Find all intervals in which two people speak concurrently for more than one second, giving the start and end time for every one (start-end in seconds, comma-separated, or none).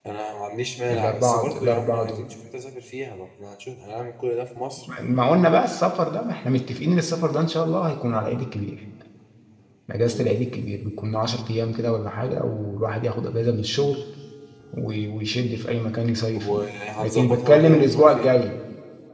0.9-2.2, 17.0-18.4